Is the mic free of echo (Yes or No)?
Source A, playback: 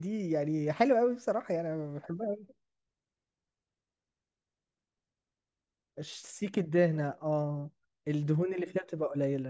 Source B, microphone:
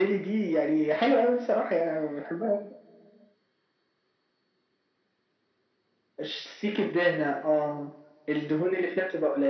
No